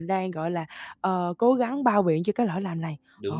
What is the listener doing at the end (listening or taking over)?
taking over